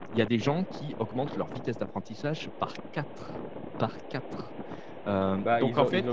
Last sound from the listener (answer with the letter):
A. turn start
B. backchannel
A